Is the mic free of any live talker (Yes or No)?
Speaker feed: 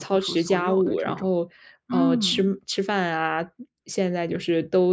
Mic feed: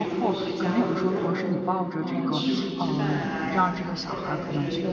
No